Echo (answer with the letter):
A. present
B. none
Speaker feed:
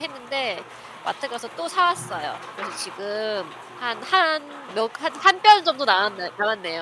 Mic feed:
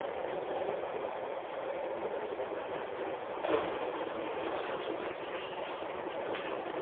B